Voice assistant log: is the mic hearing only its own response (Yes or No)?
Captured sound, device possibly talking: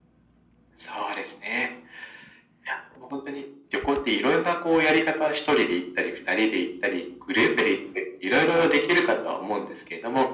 Yes